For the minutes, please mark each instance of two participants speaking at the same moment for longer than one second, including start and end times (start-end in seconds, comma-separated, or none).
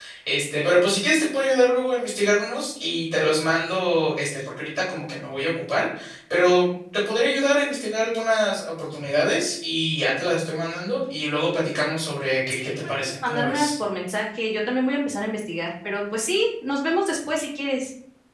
12.5-13.7